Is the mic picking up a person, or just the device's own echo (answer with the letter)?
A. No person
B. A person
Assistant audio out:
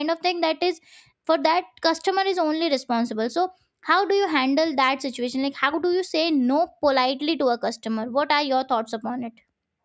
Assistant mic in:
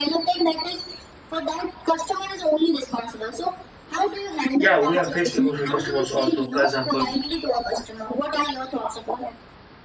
B